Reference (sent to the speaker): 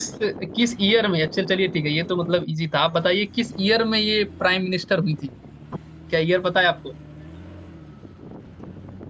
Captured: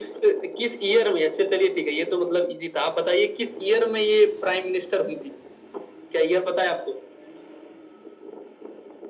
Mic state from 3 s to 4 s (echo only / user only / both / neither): echo only